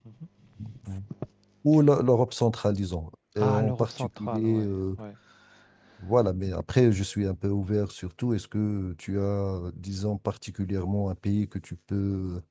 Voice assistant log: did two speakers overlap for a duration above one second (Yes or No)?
Yes